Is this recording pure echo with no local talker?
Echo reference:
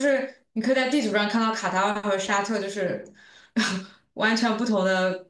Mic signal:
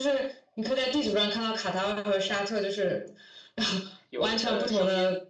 No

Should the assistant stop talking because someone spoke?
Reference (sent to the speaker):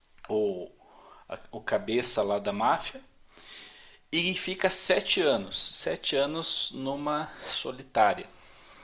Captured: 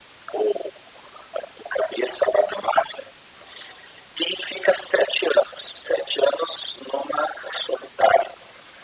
No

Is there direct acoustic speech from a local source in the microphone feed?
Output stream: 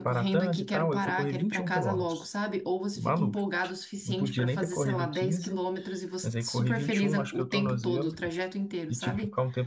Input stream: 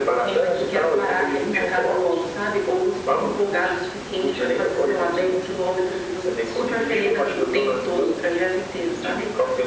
No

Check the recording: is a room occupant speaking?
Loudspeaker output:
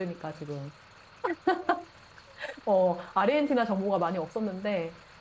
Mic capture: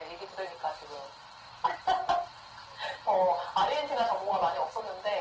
No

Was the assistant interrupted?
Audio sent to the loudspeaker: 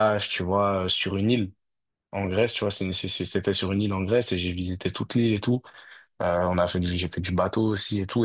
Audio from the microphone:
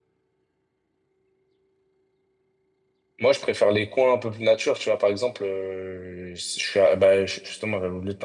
Yes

